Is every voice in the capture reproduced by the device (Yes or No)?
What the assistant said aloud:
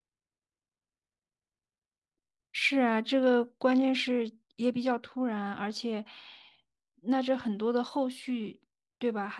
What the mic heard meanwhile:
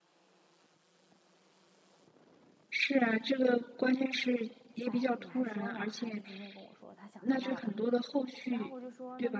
No